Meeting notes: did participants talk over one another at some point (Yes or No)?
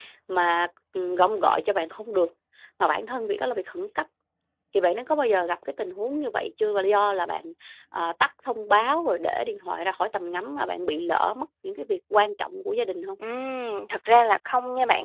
No